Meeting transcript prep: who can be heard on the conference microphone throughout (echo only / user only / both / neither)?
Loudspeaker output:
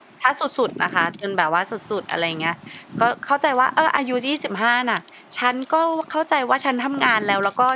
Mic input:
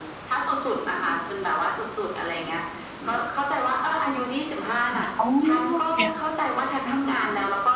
both